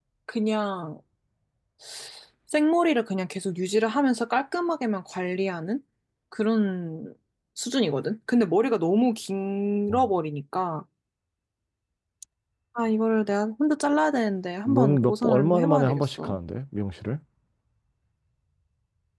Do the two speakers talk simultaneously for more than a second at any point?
Yes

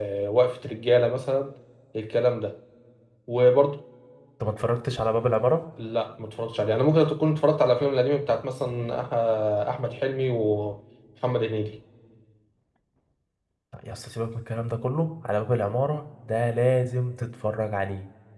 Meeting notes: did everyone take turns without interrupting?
Yes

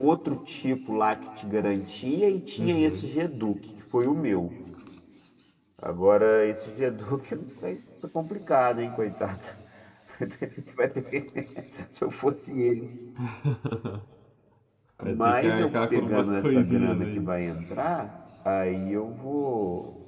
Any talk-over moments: Yes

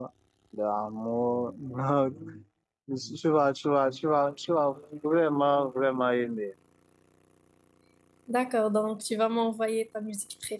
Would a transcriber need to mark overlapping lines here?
No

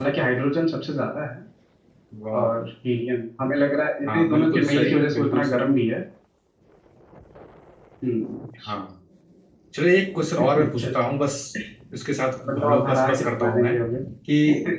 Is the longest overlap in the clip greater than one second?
Yes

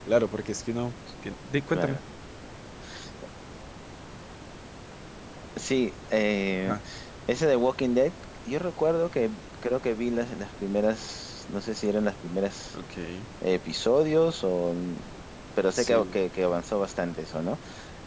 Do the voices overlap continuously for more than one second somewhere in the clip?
No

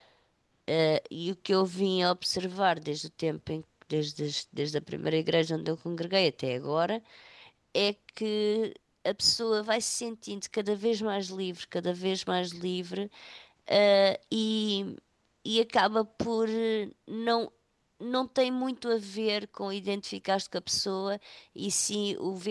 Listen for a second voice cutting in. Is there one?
No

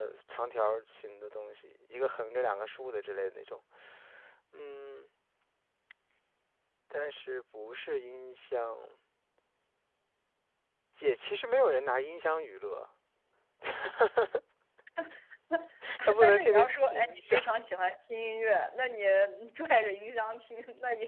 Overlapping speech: Yes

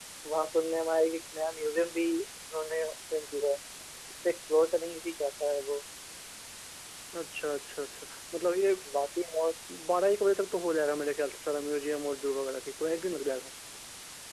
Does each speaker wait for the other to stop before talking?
Yes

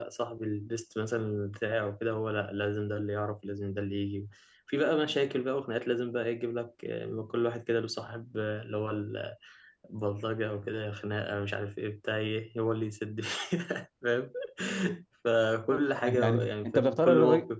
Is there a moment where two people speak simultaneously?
Yes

